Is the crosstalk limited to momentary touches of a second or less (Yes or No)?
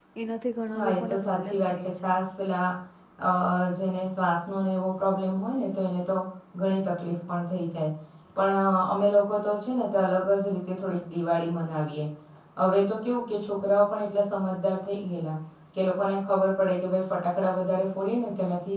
No